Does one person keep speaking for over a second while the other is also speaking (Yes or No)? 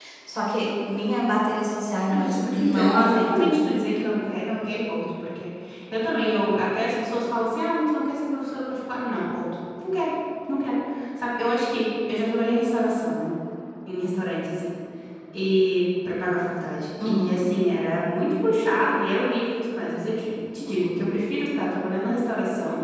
Yes